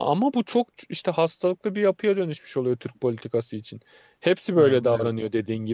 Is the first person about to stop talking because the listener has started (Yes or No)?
No